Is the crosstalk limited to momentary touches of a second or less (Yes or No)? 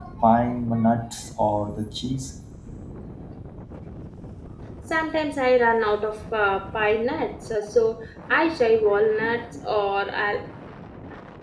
Yes